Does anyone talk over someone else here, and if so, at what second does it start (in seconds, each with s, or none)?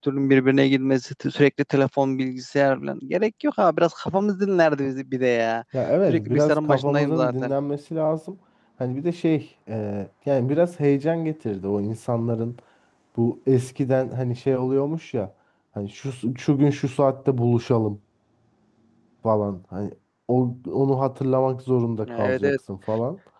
6.1 s